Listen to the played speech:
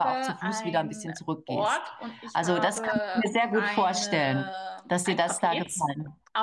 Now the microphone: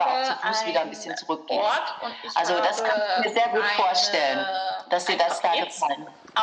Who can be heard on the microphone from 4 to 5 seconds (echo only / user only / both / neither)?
echo only